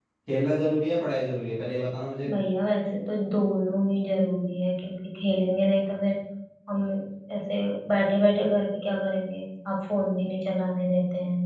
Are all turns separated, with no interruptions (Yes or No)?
Yes